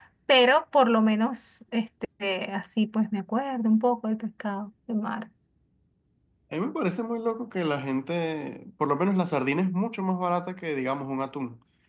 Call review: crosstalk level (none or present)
none